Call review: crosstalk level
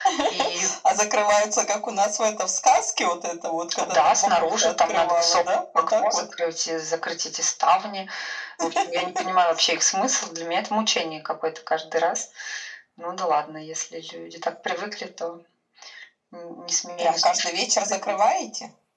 present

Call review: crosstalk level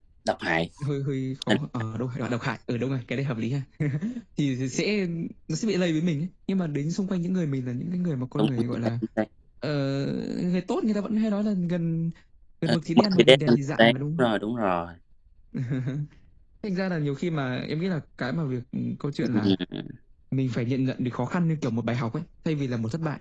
present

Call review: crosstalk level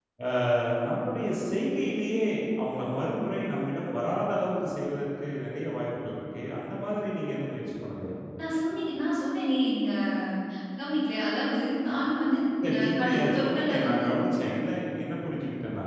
present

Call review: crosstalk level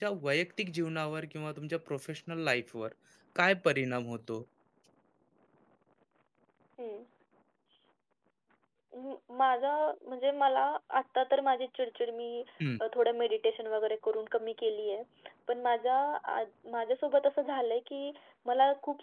none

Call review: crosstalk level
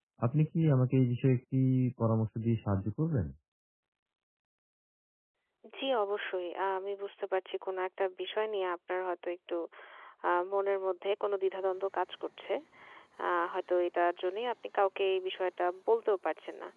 none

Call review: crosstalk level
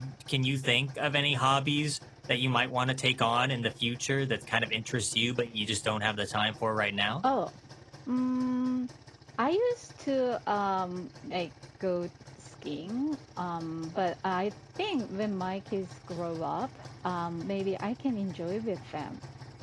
none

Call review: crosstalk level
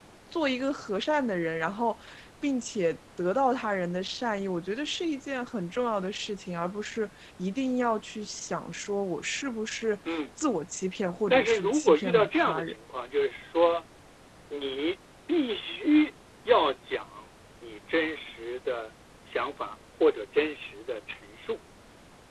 present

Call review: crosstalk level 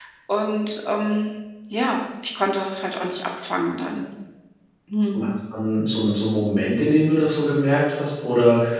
none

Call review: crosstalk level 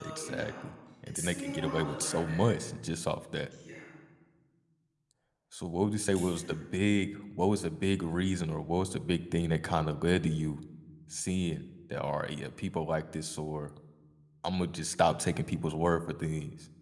present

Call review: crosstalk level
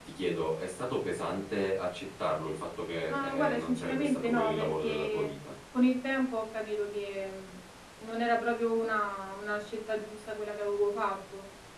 present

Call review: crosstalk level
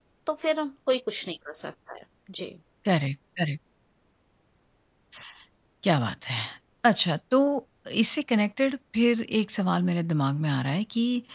none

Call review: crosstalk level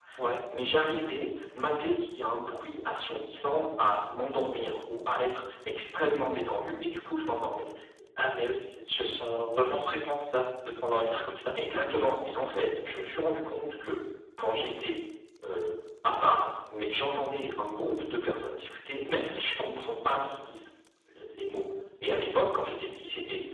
none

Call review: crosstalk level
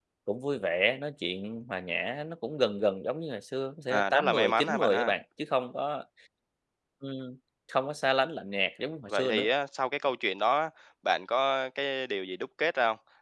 present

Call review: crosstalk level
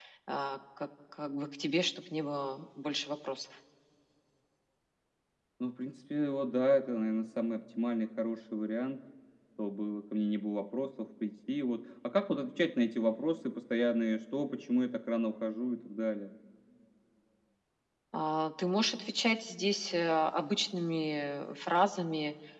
none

